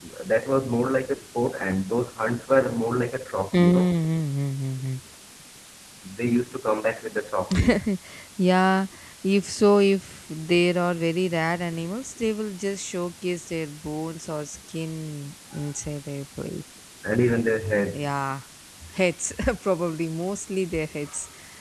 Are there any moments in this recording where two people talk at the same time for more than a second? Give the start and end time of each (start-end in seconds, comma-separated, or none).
none